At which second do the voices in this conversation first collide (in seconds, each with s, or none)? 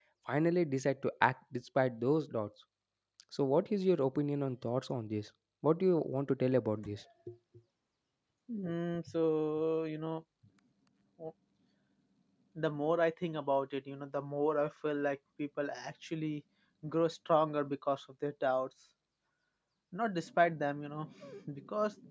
none